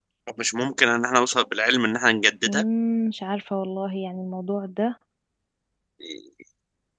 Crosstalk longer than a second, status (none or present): none